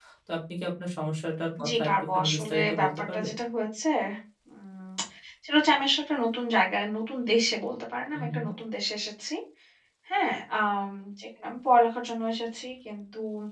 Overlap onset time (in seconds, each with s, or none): 1.7 s